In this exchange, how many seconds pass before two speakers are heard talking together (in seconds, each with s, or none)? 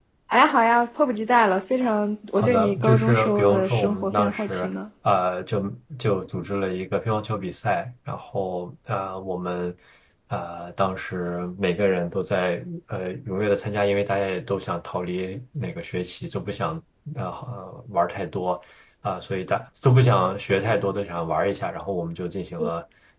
2.4 s